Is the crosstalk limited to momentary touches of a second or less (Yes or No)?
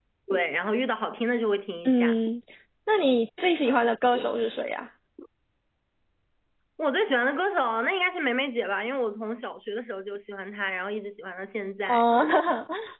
Yes